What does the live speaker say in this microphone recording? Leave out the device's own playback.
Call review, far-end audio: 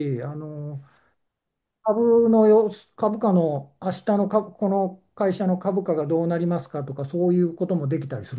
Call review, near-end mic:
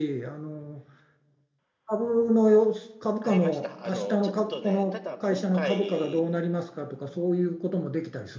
買いました。あの、ちょっとね、ただ今回、

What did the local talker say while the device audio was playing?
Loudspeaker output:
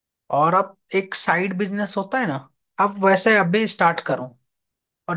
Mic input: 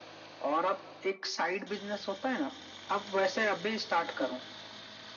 none

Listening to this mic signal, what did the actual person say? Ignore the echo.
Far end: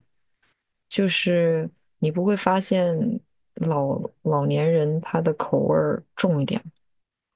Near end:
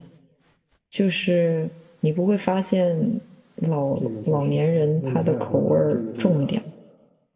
这个确实。哎呀，那你还有什么这个这个

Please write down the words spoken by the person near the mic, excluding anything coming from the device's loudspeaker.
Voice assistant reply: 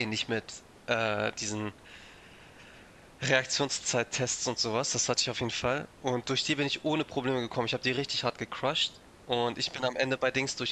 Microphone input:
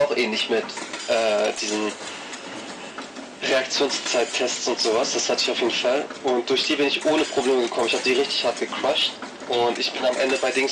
none

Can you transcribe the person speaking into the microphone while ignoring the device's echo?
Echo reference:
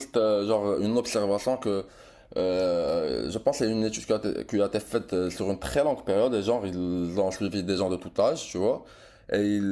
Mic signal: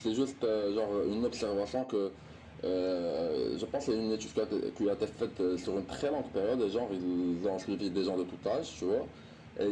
none

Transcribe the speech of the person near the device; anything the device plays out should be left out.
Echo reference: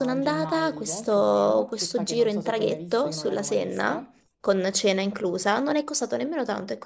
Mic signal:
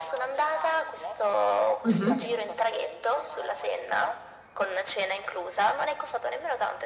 mhm.

